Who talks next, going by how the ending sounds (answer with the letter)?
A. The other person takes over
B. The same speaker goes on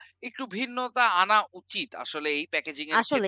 A